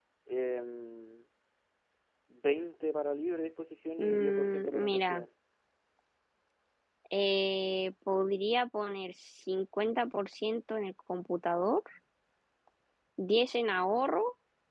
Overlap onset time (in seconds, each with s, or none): 4.0 s